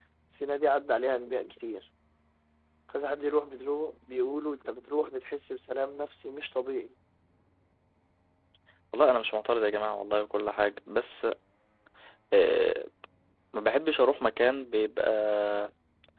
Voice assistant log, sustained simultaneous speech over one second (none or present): none